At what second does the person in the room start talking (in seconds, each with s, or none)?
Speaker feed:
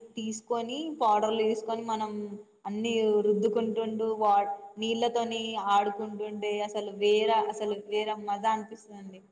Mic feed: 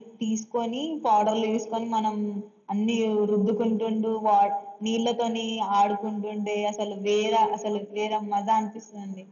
none